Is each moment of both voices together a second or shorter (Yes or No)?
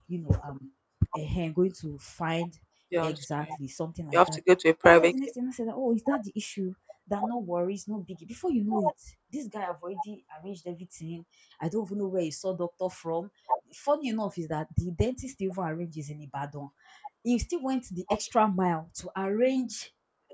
Yes